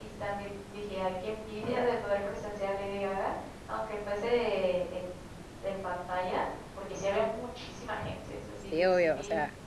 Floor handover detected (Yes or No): Yes